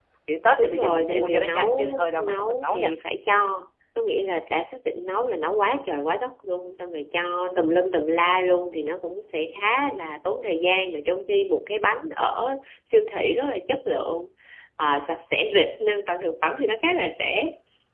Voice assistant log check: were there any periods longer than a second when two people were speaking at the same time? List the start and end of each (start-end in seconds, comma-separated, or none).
0.6-2.9